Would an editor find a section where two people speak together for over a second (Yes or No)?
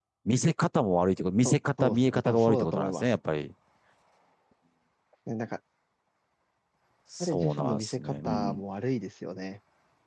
Yes